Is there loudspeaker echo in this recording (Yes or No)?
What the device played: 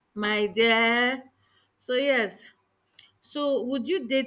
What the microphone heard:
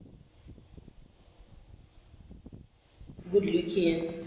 No